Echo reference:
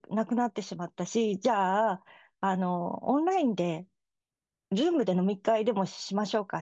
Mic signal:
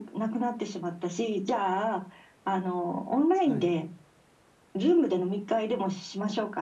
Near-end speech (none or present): present